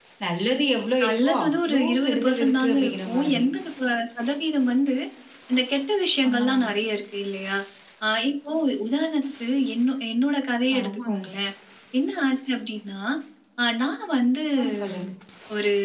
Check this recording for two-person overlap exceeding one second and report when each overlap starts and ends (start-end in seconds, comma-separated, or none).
1.0-3.4